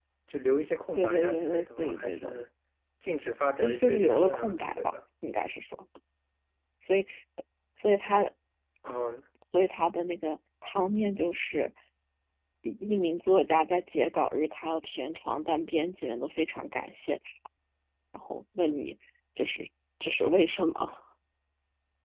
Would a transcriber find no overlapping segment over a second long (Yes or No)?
No